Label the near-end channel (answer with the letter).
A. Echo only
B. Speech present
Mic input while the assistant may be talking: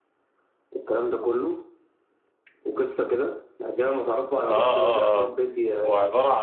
B